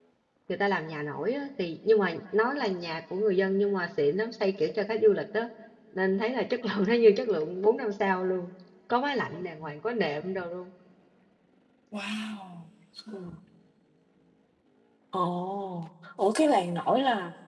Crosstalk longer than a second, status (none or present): none